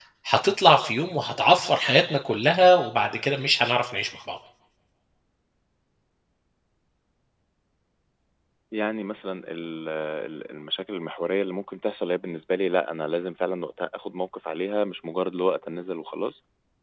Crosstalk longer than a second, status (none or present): none